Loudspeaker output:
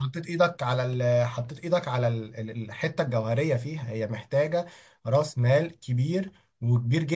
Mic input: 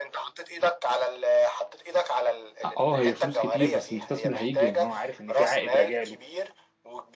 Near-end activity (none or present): present